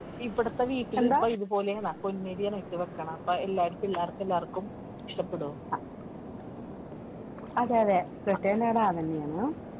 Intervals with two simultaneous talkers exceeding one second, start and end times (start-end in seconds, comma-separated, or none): none